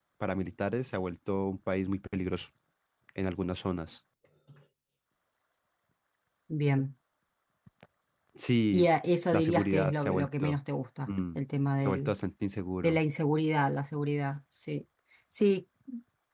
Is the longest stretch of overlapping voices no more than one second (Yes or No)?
No